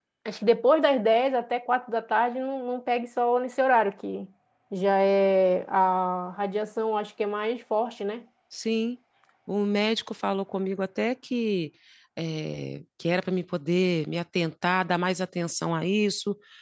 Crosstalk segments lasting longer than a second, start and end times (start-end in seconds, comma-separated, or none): none